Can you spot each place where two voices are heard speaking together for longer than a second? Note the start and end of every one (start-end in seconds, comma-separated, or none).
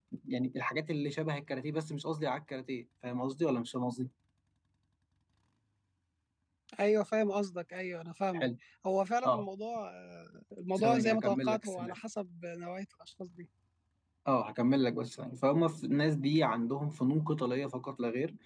10.8-12.0